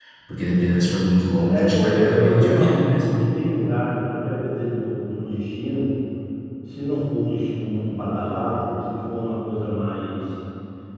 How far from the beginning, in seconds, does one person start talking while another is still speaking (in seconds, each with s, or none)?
1.5 s